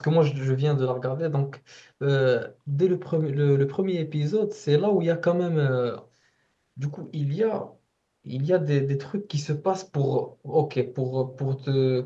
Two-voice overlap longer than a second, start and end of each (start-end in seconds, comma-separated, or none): none